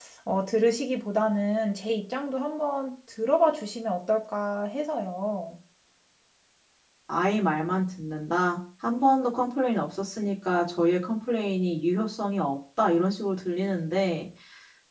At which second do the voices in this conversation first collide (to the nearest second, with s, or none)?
none